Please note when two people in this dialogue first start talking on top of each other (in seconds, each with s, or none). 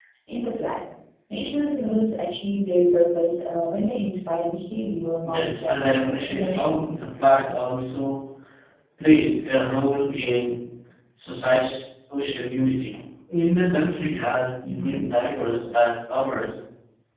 5.2 s